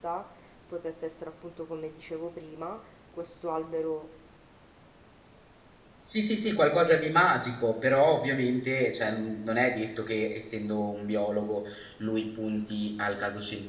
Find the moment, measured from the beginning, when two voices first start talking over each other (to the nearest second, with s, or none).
none